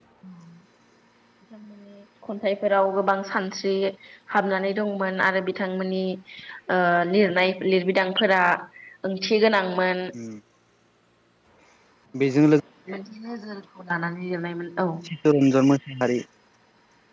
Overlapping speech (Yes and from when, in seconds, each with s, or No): No